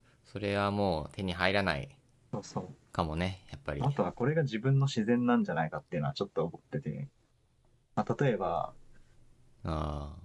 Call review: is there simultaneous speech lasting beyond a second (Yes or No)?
No